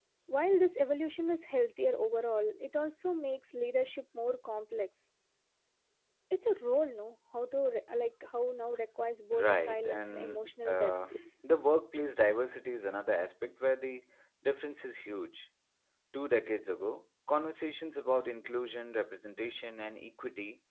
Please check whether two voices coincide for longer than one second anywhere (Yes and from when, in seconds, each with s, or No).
Yes, from 9.3 s